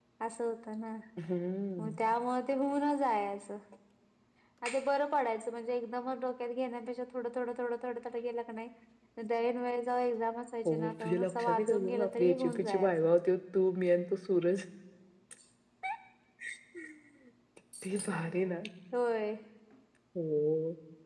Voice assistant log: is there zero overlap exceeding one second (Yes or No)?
No